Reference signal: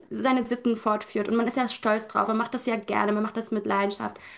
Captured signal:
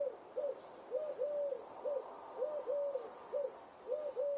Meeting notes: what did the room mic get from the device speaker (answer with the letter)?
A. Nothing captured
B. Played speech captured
A